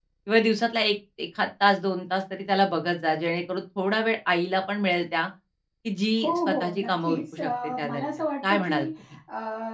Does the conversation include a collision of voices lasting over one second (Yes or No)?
Yes